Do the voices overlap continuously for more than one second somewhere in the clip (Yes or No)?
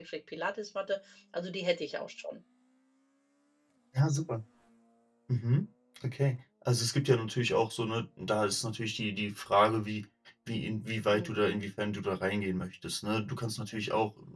No